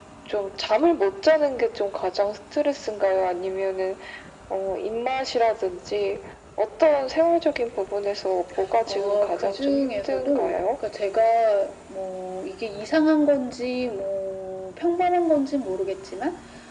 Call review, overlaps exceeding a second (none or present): present